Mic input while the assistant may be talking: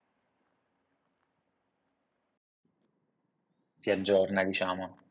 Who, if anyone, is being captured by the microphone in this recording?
user only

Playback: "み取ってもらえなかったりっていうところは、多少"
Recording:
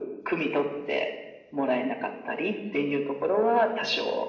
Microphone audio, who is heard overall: echo only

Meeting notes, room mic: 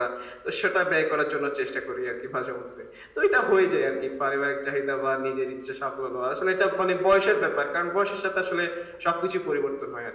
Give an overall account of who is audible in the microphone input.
echo only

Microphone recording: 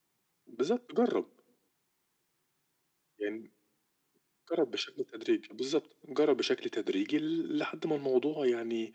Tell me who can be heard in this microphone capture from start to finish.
echo only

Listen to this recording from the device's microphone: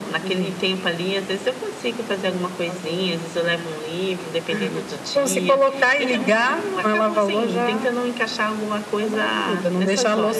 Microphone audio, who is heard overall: echo only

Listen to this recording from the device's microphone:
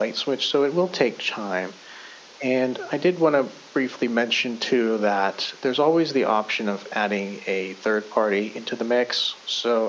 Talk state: echo only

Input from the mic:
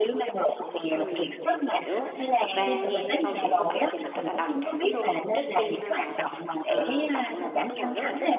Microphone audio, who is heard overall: both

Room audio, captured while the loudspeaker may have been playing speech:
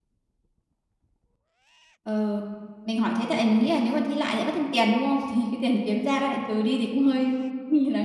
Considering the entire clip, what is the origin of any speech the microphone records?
user only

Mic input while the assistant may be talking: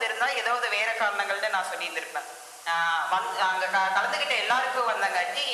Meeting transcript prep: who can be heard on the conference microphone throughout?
echo only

